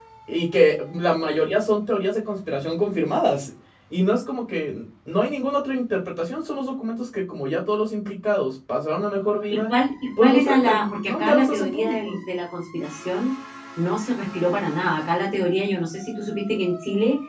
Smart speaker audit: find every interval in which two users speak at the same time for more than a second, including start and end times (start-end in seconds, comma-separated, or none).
10.2-12.2